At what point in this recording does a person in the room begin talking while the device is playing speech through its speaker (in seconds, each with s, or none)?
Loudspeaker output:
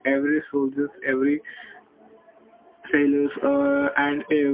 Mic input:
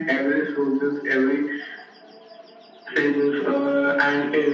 none